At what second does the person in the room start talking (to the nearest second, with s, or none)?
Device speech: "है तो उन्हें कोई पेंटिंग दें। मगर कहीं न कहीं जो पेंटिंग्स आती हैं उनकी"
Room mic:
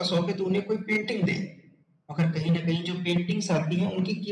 none